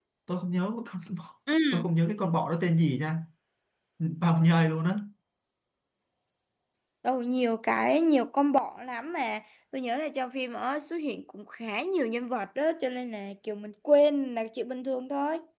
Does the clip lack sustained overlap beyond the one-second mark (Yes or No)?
Yes